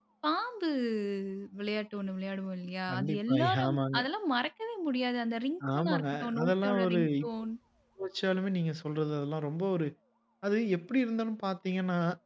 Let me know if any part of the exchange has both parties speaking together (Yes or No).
Yes